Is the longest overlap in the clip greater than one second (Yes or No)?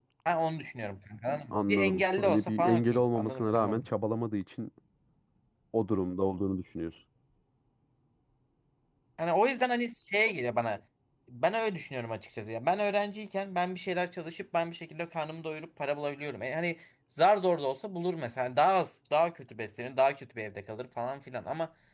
Yes